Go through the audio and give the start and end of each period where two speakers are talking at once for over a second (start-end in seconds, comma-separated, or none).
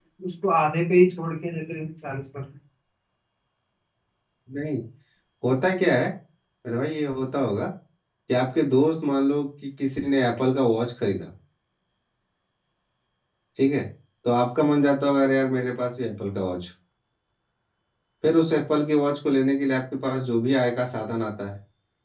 none